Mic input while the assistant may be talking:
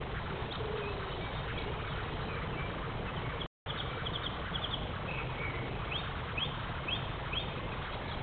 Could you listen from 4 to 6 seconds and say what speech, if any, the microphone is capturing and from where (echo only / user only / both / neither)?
neither